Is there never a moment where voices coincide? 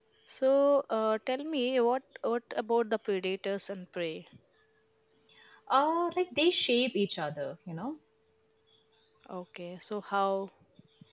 Yes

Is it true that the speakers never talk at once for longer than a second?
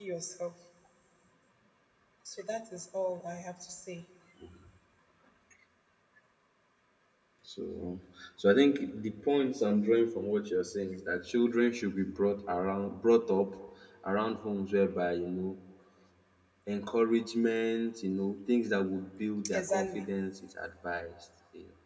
Yes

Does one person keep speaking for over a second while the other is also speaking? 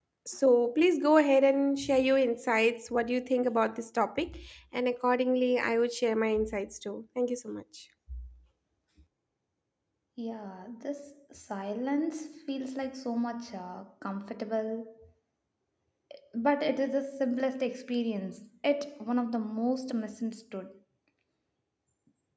No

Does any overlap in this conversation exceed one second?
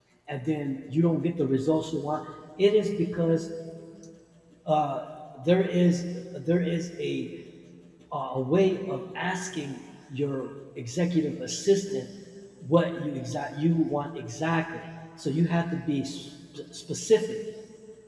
No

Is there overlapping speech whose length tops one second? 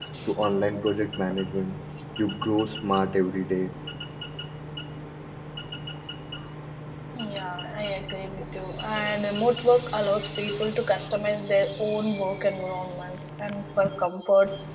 No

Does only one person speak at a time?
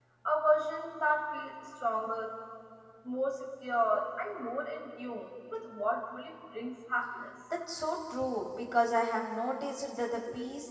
Yes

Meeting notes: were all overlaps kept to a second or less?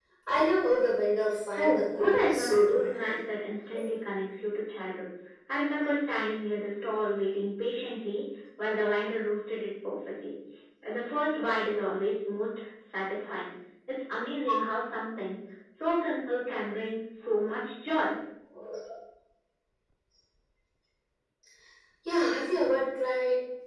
No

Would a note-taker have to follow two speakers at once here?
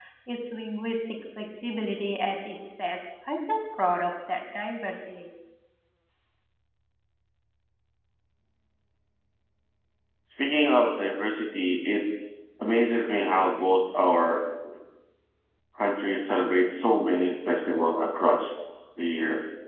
No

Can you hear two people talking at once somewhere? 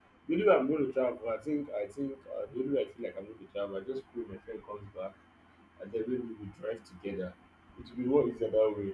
No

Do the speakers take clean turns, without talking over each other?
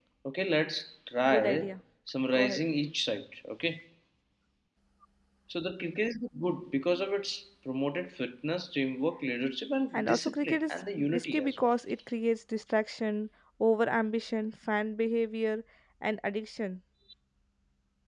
No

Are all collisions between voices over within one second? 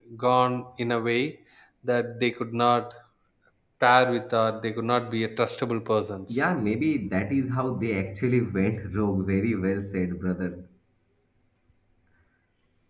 Yes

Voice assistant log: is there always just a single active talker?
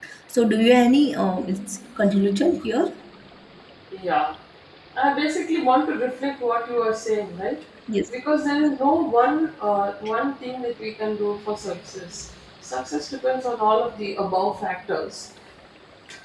Yes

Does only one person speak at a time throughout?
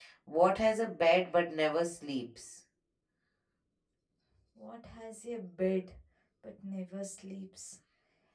Yes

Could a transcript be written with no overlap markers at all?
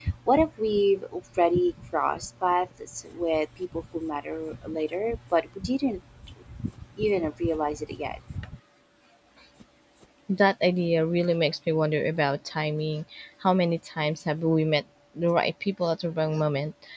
Yes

